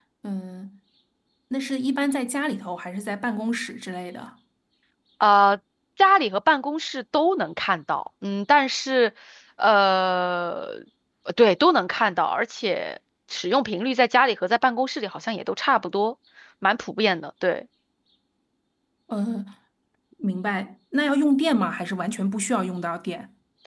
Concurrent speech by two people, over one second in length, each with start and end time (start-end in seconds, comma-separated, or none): none